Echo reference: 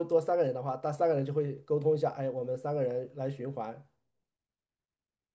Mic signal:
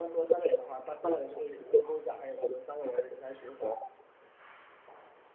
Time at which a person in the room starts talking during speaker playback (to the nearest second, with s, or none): none